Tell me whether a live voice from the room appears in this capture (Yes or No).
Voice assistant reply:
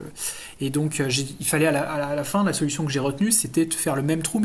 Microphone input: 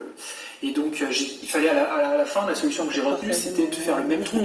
Yes